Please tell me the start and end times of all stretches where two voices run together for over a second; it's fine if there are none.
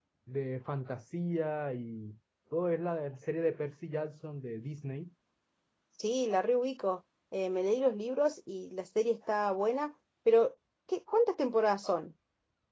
none

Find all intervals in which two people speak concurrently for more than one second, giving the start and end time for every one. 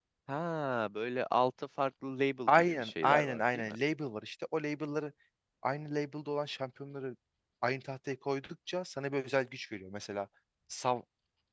2.5-3.7

